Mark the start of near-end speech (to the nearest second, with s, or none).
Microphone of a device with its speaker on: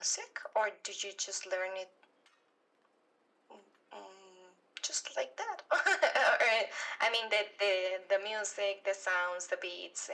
none